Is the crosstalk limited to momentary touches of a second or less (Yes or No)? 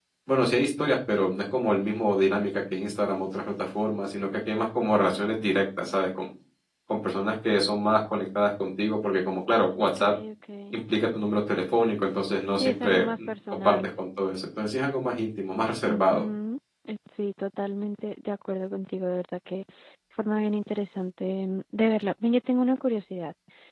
No